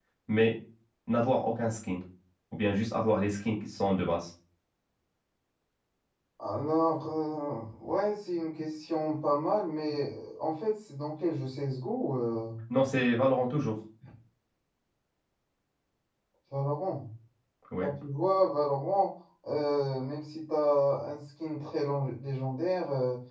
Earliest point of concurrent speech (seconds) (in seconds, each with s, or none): none